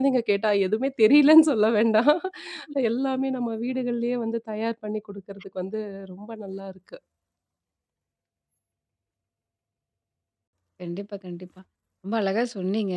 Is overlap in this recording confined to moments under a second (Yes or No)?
Yes